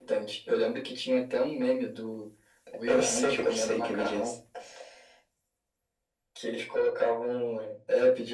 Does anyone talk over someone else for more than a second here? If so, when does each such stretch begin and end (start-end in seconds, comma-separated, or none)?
2.9-4.3